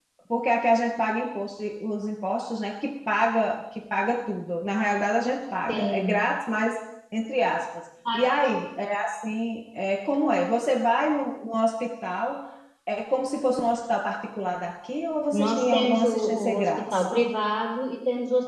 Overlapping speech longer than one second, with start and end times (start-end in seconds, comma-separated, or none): 15.3-17.0